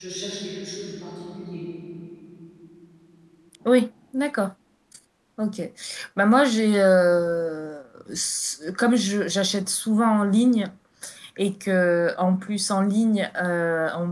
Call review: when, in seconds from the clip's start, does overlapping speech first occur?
none

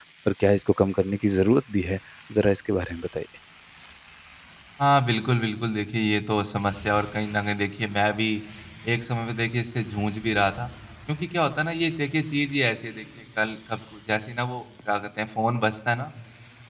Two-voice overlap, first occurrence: none

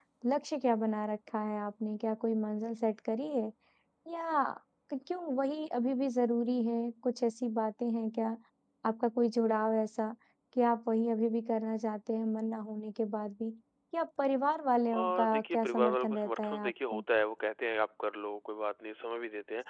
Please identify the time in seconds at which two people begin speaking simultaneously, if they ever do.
15 s

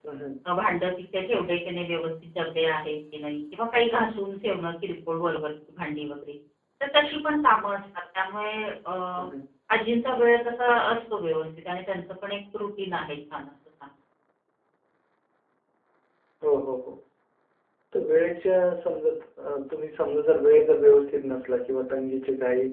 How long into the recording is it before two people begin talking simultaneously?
none

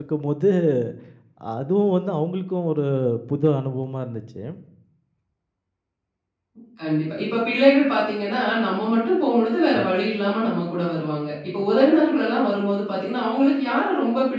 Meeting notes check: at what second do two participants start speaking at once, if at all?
none

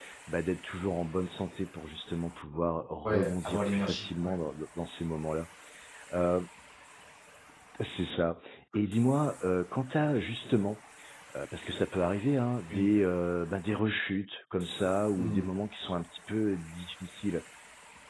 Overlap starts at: 3 s

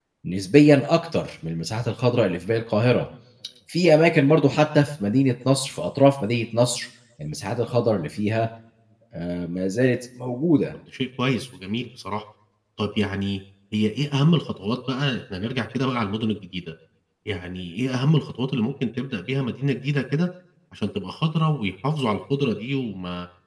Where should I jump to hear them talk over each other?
none

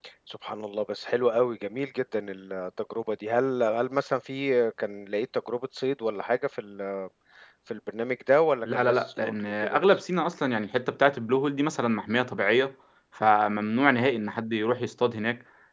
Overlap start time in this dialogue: 9 s

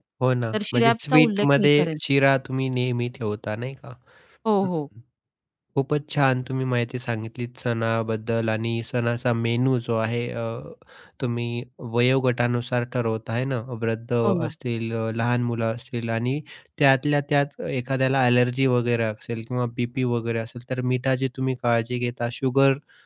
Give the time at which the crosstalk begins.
1 s

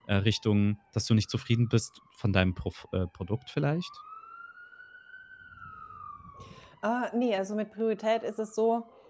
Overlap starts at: none

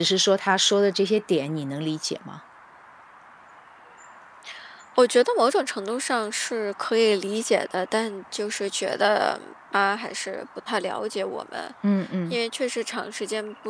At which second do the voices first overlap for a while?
none

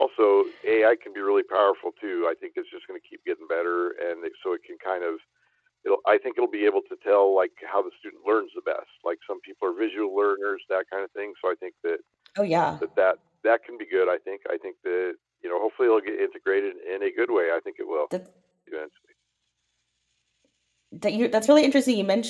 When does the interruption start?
none

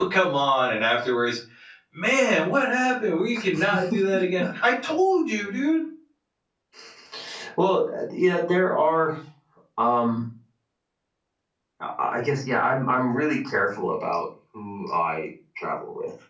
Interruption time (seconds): none

